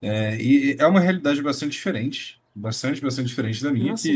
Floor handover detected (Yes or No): No